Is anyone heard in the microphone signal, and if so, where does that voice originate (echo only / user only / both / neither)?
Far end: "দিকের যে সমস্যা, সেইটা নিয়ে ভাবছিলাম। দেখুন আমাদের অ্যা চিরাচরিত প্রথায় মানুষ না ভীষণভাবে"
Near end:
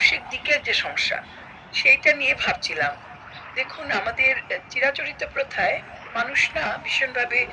echo only